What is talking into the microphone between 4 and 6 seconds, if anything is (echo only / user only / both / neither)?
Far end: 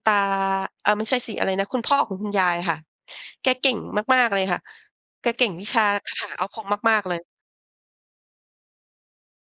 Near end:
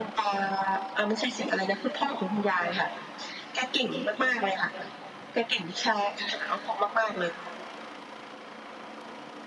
echo only